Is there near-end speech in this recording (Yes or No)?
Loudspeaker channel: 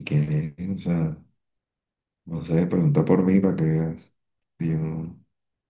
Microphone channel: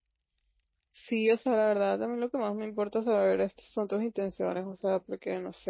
Yes